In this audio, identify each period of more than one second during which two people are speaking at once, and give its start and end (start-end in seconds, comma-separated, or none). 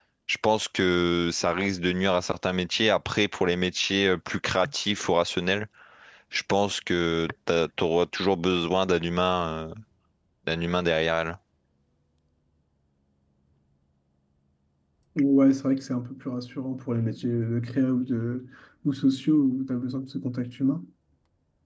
none